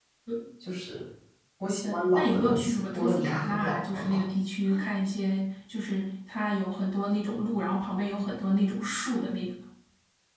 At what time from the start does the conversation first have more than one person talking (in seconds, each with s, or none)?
1.8 s